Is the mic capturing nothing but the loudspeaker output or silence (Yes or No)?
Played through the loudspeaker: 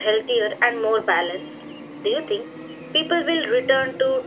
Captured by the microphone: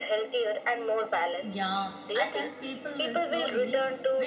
No